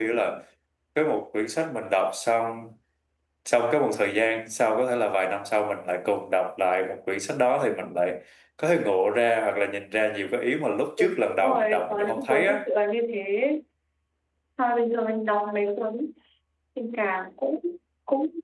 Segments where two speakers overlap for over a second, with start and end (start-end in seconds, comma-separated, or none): 11.0-12.6